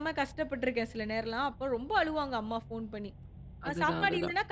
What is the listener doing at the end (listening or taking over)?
listening